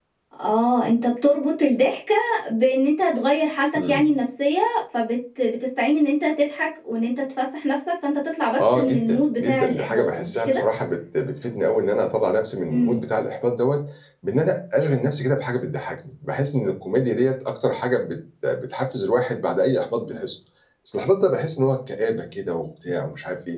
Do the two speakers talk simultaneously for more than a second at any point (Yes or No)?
Yes